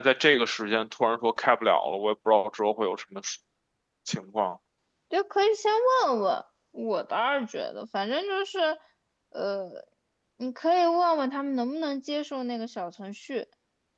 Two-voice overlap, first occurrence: none

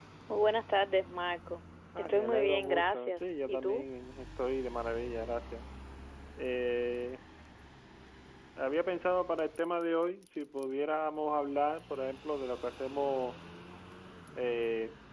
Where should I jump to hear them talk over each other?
1.9 s

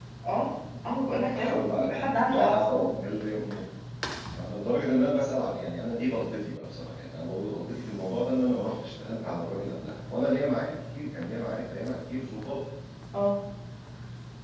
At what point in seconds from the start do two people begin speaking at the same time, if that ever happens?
1.3 s

